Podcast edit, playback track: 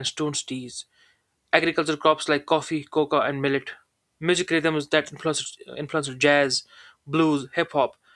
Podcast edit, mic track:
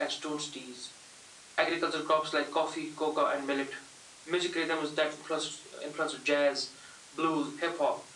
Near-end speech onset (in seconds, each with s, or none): none